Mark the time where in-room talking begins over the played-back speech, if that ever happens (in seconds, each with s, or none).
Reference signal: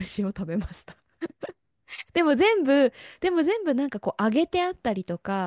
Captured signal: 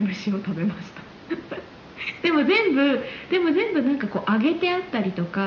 none